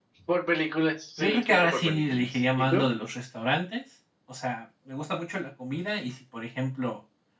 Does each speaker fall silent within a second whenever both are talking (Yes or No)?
No